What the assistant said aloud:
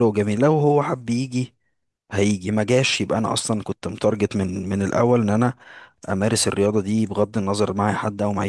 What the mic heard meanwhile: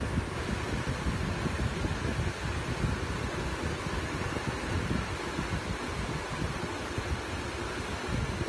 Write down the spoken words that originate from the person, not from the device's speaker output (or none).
none